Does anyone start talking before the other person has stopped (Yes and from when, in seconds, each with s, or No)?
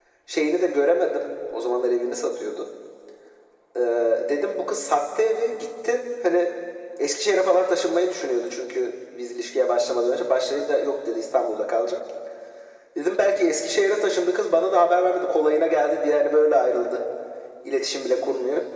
No